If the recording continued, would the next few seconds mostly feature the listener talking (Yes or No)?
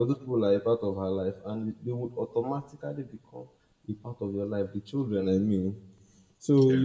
No